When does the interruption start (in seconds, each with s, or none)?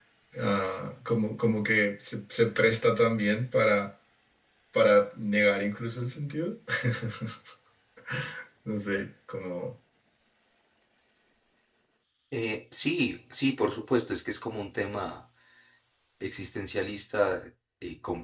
none